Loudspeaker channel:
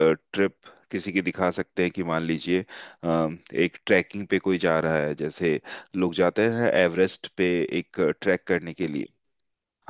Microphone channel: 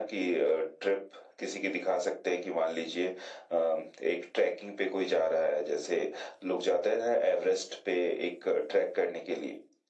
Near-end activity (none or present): none